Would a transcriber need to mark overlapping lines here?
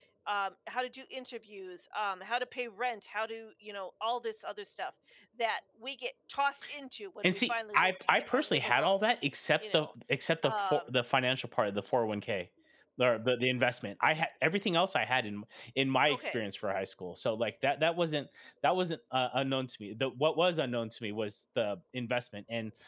Yes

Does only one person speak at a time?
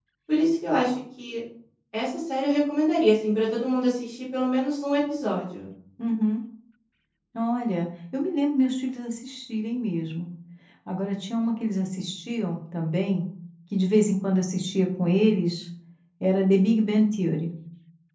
Yes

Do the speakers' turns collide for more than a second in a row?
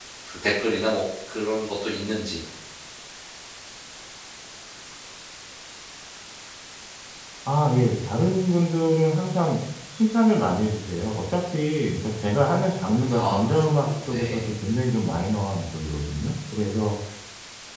Yes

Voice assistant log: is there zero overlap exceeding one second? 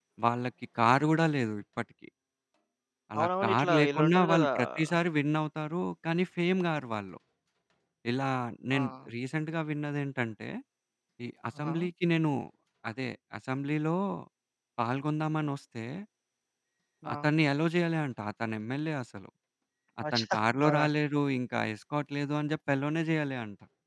No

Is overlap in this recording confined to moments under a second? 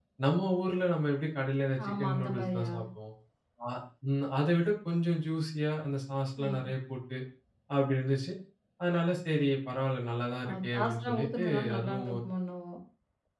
No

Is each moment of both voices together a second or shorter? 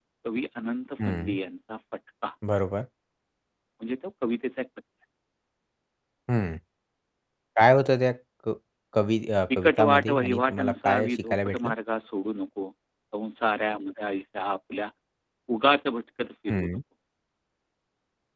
No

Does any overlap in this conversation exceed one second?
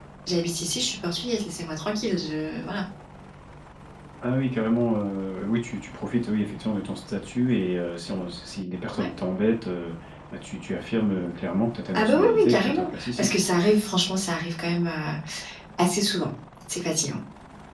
Yes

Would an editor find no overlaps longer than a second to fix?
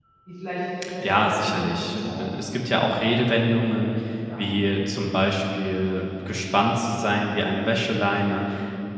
No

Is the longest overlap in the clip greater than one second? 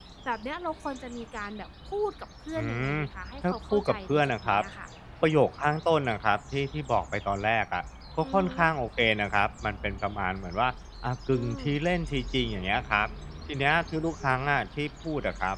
Yes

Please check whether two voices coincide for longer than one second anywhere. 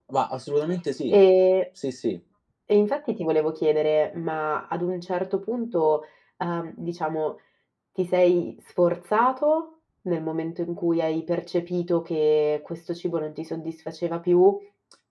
No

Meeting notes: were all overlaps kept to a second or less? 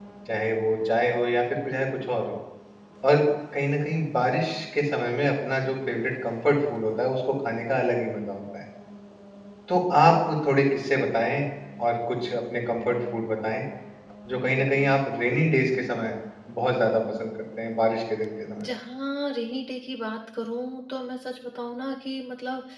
Yes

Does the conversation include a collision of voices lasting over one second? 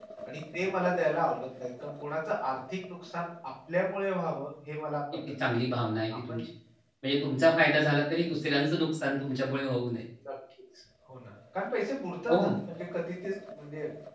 No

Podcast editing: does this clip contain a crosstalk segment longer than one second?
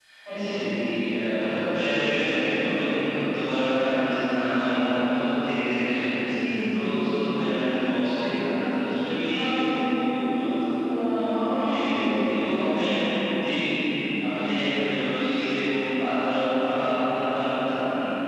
Yes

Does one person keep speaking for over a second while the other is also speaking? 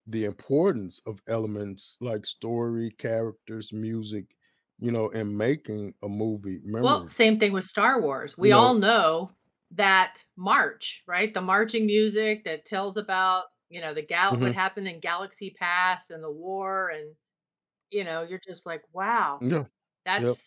No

